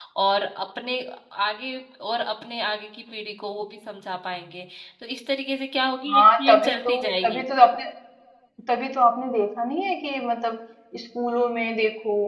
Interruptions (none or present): present